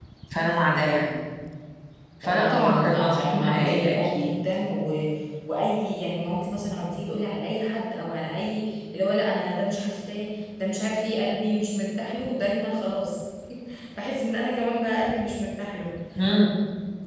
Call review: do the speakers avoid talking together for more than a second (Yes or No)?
No